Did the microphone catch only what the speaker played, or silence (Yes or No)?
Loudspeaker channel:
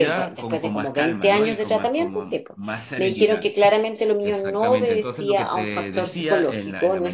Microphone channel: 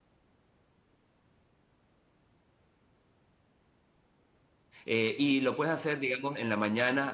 No